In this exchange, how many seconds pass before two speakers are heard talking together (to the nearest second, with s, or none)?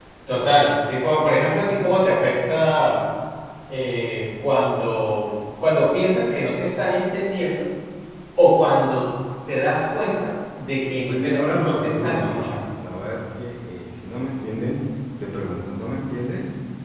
11 s